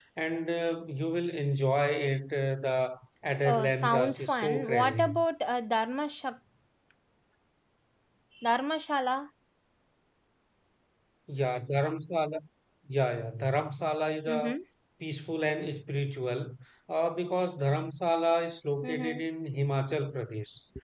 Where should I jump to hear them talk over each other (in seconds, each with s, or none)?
3.4 s